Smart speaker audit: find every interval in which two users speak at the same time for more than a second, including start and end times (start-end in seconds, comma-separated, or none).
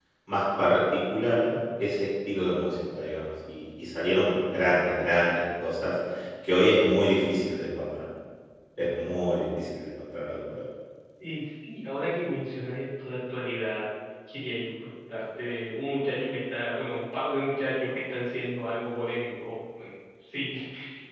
none